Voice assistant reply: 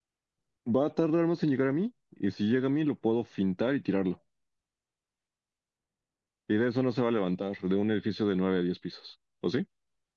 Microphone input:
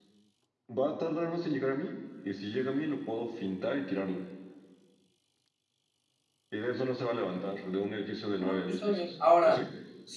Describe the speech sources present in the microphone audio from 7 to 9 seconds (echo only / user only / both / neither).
both